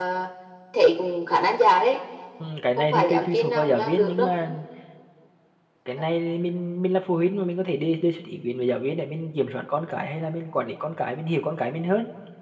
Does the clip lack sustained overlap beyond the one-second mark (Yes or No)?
No